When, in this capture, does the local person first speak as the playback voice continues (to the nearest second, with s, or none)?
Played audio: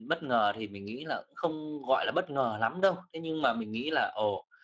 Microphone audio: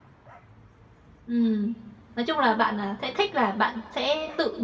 1 s